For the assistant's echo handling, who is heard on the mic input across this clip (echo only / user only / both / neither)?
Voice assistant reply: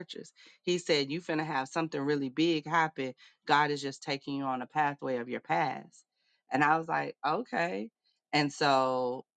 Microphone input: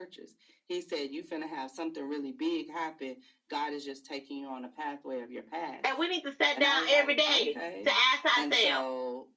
both